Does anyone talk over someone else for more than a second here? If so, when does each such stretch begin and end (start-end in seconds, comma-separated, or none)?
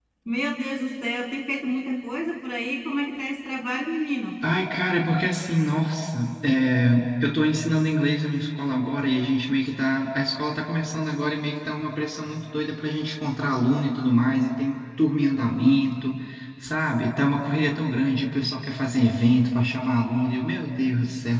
none